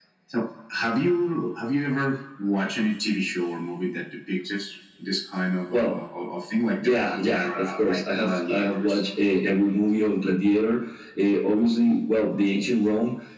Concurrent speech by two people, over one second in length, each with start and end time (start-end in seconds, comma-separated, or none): 6.8-9.0